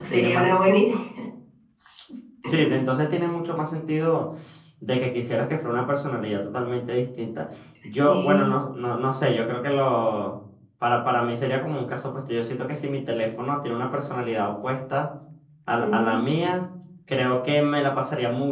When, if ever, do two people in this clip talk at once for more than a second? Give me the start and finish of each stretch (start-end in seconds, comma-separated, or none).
none